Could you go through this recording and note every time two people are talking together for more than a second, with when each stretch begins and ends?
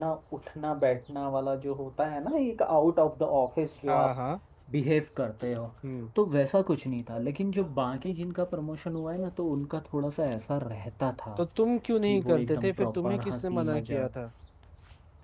12.0-14.1

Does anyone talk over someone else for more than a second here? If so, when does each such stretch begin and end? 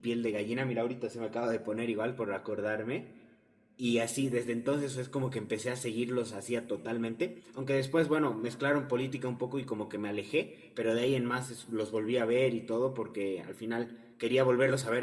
none

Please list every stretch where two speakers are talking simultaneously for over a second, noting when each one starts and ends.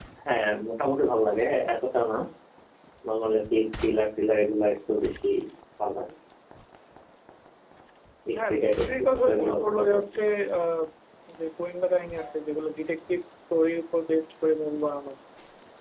8.4-10.0

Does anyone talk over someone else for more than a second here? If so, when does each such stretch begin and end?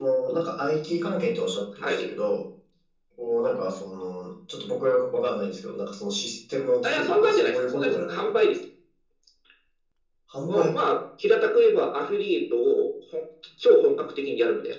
6.8-8.4

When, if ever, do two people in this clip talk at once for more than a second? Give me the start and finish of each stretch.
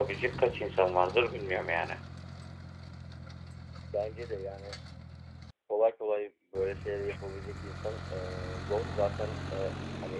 none

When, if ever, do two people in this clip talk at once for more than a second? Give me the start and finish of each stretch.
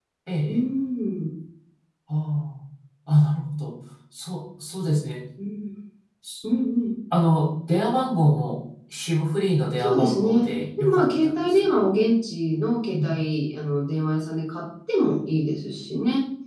9.8-11.7

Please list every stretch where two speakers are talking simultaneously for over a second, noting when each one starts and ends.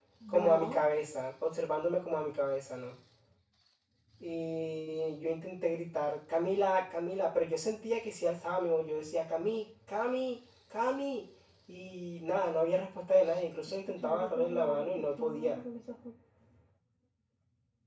13.9-15.6

